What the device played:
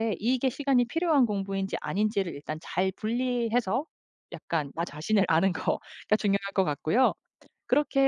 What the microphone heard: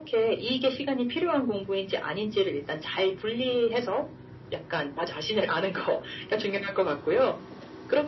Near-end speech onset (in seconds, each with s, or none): none